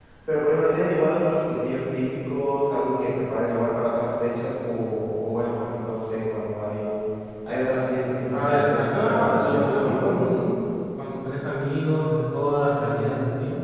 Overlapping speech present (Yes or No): Yes